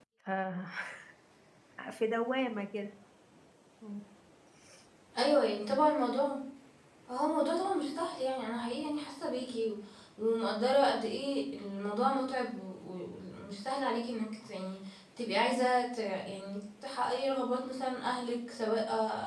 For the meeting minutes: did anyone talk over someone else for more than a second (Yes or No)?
No